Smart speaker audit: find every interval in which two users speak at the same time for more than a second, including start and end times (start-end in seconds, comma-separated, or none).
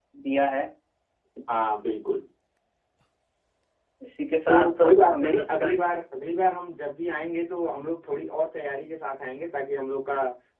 4.5-5.8